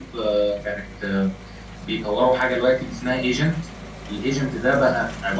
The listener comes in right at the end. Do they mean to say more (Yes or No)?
No